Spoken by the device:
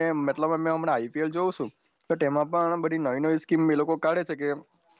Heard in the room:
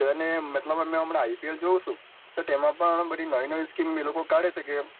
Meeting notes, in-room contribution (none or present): none